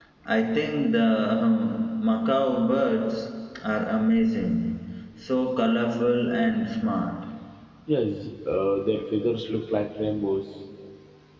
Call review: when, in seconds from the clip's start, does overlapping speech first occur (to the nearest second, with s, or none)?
none